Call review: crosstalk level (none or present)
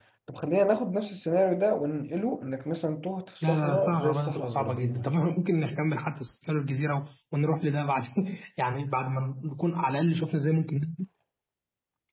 present